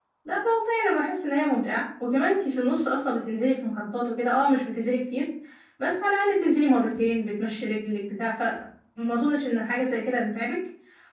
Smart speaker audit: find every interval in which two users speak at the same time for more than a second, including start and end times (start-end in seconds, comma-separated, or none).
none